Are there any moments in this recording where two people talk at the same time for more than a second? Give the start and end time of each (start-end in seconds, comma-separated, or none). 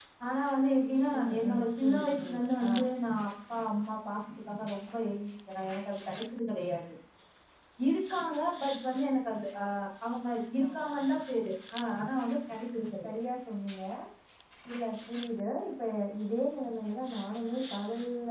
1.2-2.7